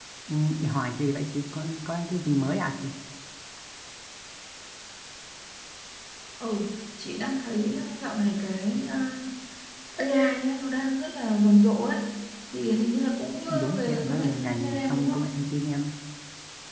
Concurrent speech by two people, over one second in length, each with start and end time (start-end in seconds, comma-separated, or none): 13.5-15.2